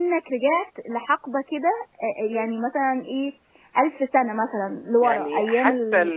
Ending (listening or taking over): taking over